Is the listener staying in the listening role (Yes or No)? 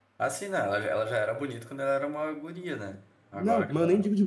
No